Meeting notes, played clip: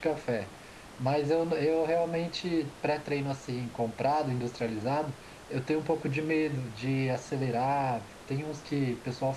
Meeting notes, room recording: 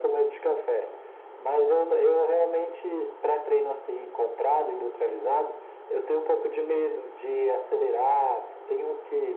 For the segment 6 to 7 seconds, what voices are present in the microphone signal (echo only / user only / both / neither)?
echo only